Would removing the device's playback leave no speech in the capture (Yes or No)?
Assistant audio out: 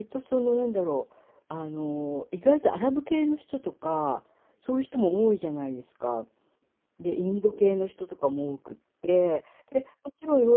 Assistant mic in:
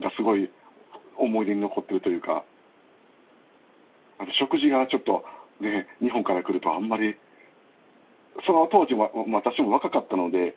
No